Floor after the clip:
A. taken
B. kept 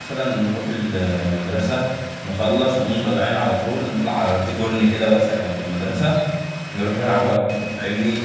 B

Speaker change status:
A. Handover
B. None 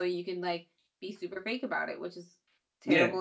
A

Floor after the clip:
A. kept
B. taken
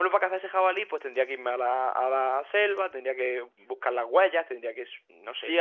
B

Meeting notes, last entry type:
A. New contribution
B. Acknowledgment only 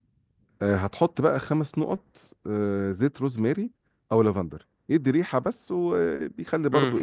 A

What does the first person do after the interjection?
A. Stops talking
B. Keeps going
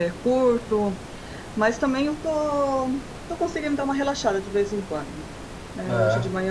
B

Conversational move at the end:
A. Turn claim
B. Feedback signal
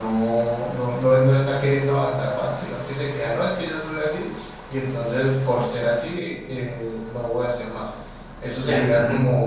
B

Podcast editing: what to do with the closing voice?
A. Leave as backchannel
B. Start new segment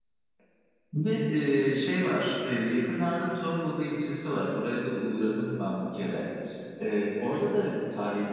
A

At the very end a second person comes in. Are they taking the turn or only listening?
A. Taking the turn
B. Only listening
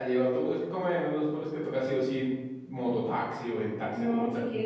A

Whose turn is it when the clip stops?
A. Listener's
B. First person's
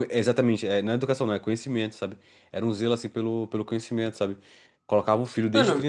B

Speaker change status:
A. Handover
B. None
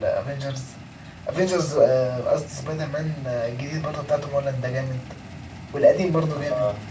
B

